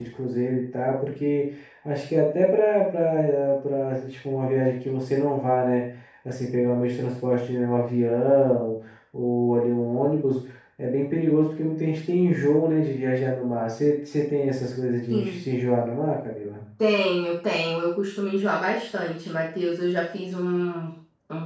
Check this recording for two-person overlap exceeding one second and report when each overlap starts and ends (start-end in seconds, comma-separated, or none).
none